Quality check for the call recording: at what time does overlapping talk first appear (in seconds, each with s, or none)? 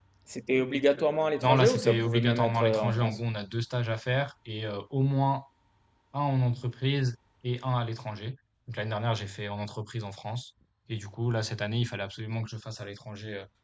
1.4 s